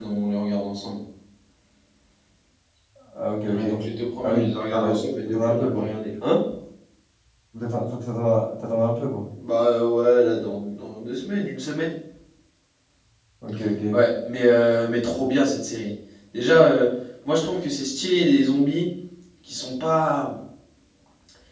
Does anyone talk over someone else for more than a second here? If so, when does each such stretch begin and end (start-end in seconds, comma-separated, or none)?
4.2-5.9